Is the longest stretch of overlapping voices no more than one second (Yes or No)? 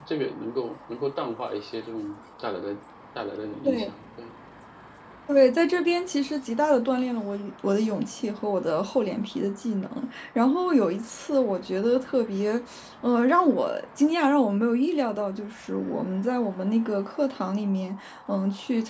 Yes